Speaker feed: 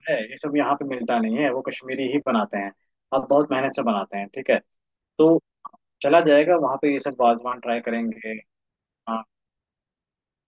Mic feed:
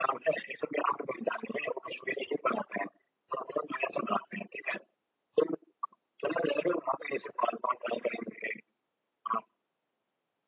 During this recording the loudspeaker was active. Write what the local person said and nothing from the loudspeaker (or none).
none